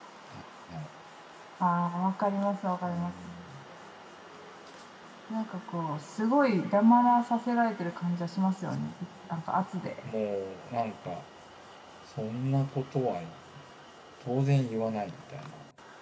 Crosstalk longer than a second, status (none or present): none